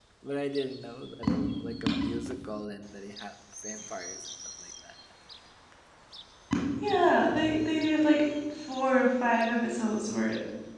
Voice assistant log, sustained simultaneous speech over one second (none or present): none